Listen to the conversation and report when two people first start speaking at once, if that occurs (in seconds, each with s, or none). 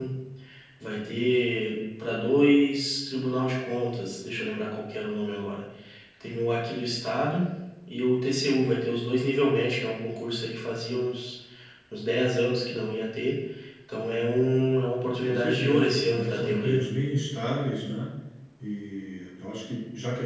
15.2 s